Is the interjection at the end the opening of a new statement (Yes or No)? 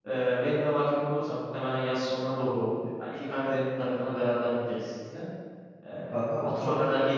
No